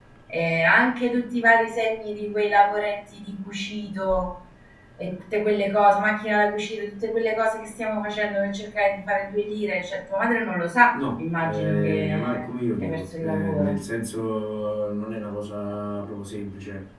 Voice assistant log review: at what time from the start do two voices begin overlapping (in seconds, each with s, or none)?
10.9 s